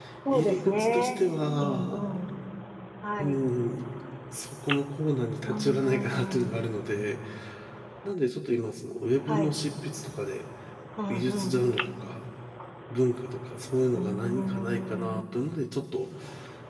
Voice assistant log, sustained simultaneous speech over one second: present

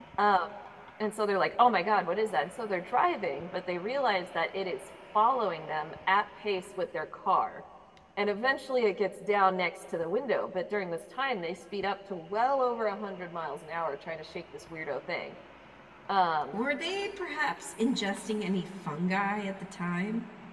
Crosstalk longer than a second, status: none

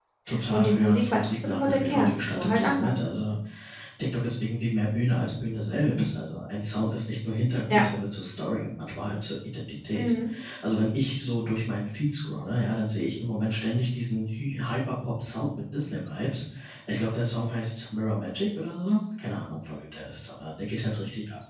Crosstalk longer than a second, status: present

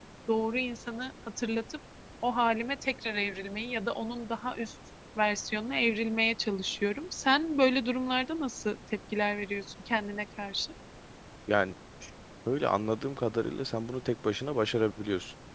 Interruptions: none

